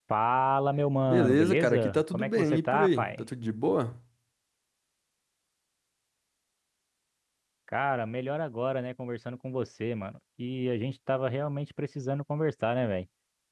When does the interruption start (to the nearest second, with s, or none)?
1 s